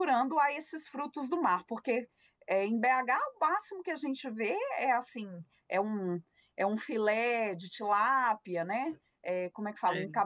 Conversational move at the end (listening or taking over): listening